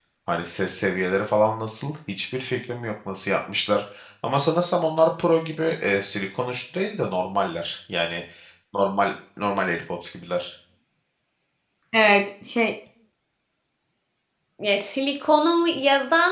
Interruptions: none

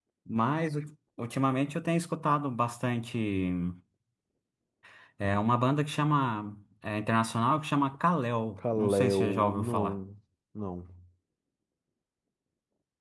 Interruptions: present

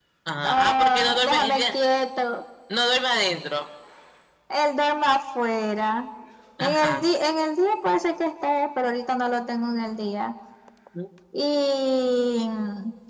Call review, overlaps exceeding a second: present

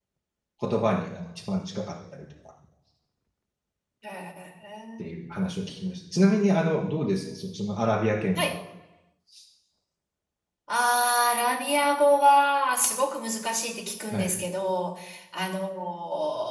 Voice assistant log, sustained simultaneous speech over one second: none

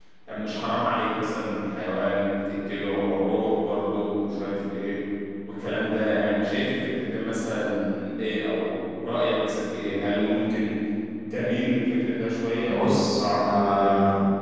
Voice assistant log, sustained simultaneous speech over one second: present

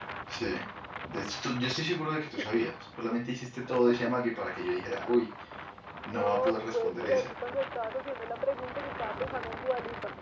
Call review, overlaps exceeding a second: present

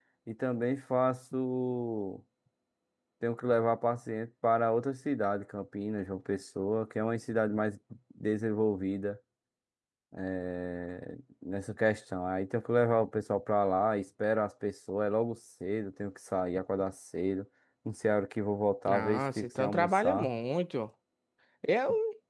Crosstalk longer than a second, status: present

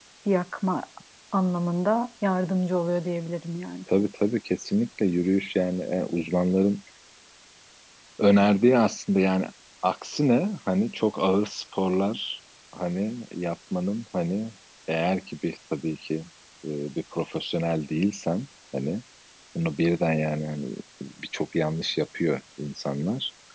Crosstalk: none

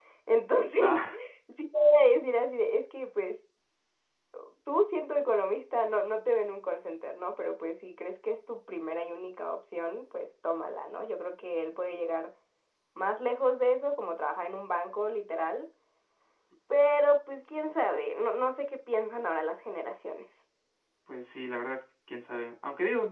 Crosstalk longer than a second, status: none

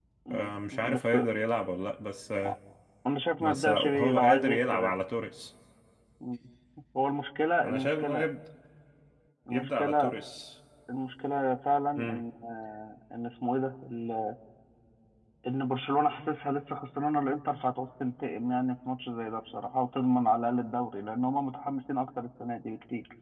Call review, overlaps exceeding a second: present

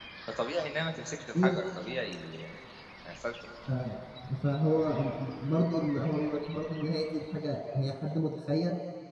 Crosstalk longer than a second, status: none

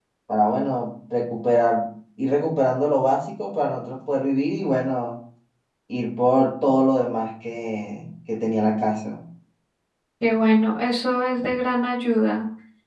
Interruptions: none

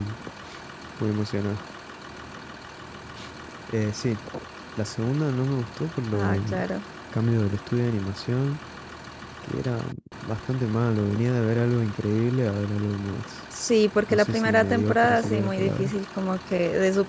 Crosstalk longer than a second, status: present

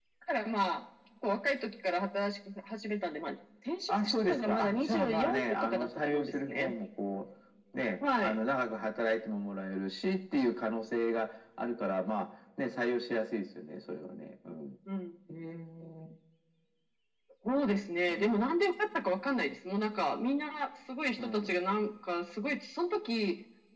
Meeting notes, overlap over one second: present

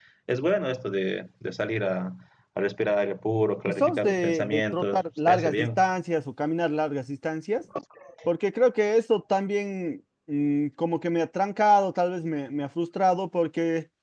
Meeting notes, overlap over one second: present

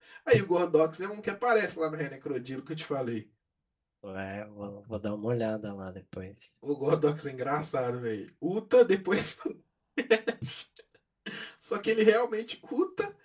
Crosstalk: none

